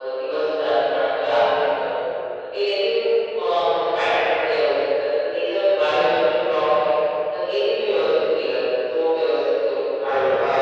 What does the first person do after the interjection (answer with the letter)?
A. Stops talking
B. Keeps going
A